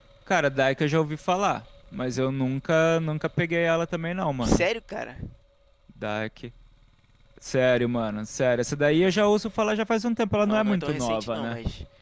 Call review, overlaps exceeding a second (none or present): present